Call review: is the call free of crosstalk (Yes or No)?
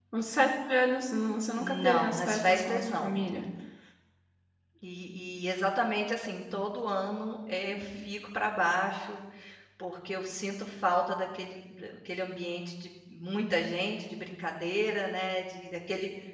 No